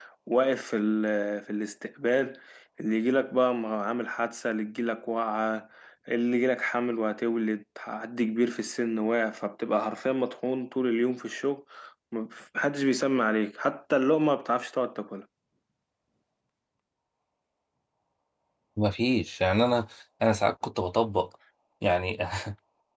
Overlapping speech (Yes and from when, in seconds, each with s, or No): No